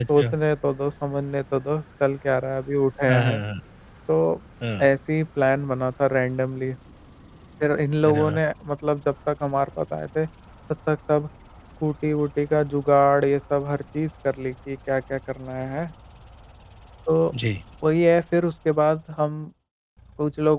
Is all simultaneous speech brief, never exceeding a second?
Yes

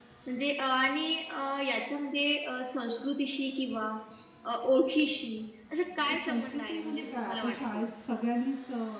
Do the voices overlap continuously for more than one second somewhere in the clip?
Yes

